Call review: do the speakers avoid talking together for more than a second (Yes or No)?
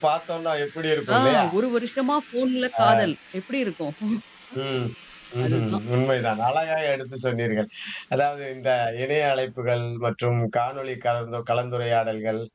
Yes